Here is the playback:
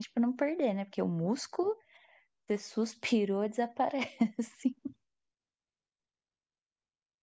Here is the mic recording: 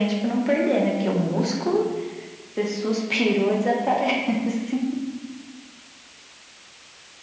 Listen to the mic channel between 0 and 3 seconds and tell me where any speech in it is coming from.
echo only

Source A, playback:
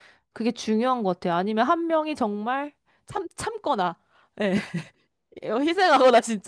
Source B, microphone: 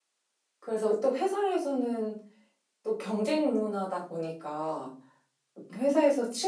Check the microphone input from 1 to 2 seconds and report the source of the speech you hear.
user only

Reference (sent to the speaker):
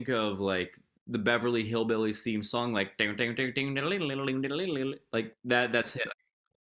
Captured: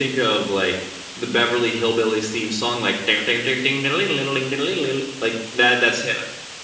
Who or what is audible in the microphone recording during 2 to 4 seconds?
echo only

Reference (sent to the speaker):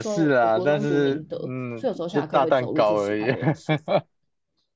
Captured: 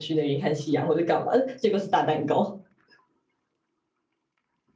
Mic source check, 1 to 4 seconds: user only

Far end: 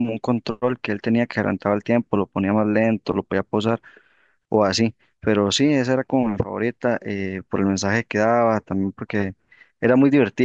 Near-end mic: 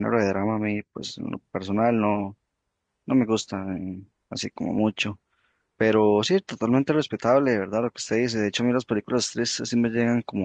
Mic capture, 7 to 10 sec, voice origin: user only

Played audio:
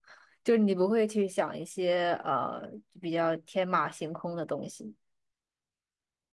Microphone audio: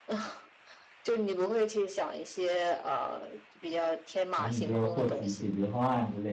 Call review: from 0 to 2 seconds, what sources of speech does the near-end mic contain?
echo only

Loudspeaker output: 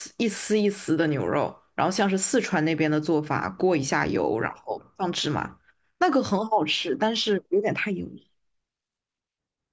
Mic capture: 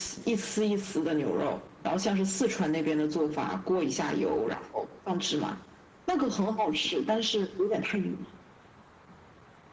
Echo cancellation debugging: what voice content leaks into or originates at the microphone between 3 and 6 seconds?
echo only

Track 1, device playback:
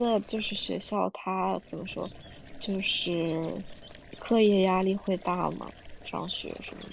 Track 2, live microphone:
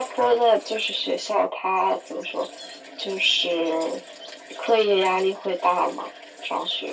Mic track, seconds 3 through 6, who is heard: echo only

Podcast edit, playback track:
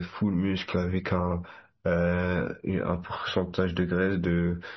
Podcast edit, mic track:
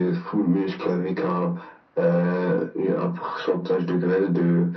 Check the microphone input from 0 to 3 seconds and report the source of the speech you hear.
echo only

